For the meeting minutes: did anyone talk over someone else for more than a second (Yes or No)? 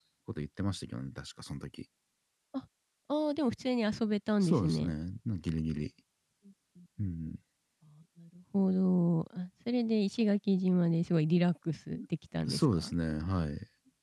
No